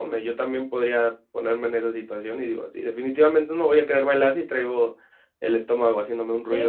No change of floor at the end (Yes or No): No